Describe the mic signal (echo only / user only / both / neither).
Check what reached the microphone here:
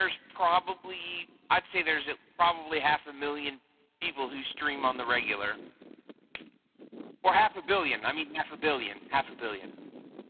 echo only